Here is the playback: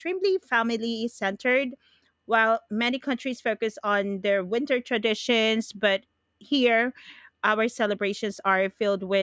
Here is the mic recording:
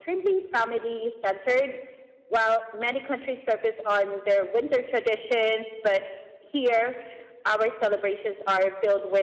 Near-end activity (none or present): none